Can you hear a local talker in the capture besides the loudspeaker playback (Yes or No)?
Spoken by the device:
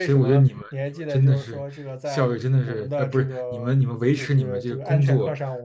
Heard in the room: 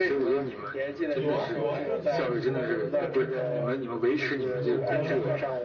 Yes